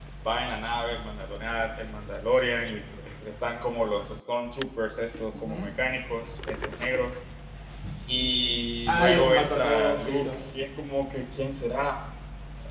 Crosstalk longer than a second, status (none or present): present